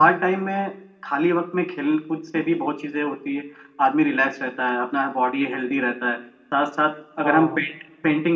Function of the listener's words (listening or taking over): listening